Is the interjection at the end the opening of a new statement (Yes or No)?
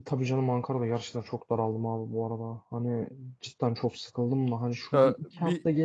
No